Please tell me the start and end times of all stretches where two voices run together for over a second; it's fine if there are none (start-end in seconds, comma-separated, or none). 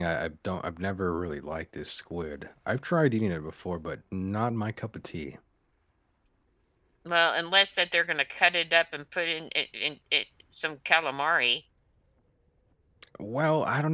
none